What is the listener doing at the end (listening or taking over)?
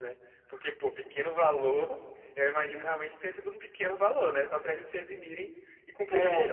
taking over